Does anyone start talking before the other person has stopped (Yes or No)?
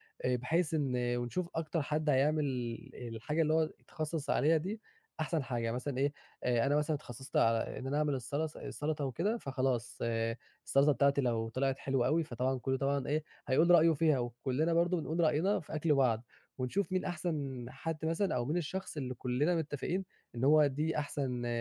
No